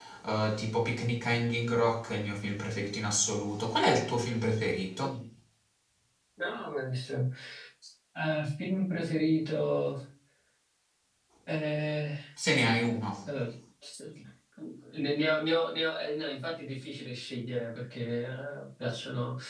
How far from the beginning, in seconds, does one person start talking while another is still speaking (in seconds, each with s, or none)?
none